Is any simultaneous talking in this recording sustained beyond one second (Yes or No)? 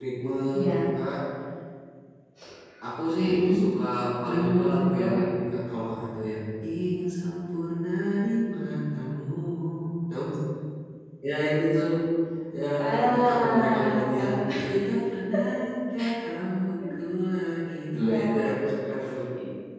Yes